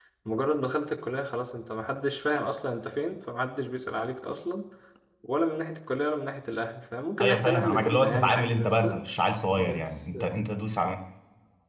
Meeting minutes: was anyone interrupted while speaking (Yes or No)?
Yes